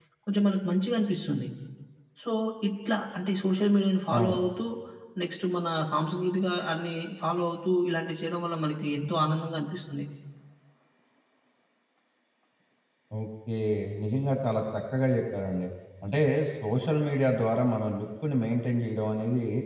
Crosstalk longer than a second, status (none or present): none